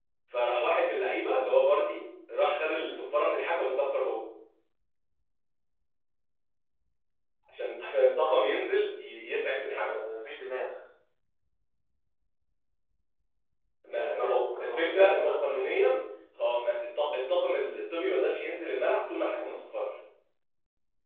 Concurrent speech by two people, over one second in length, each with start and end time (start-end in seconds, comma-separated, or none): 13.9-15.6